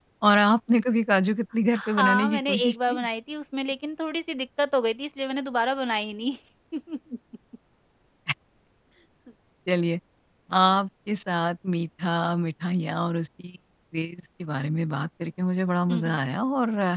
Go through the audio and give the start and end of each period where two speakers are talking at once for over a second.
1.7-3.1

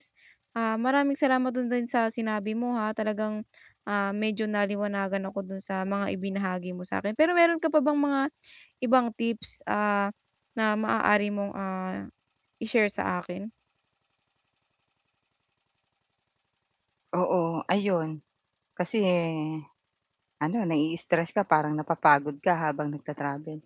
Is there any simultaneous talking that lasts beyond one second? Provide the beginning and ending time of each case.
none

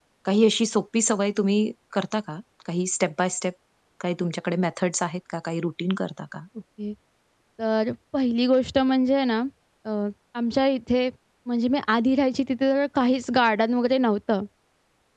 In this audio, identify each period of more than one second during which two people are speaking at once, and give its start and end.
none

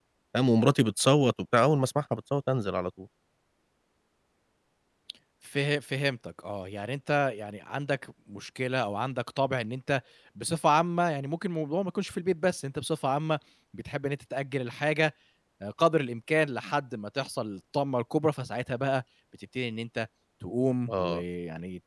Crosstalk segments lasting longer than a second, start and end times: none

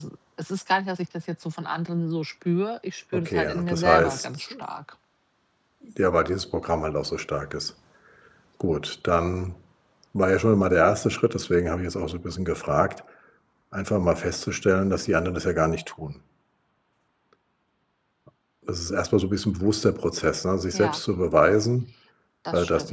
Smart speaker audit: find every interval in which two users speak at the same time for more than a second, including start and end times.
3.1-4.5

